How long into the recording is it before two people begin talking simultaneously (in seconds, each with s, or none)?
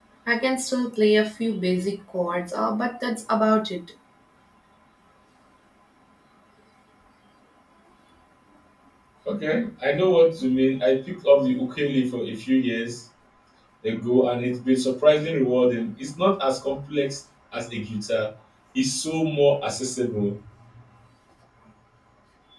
none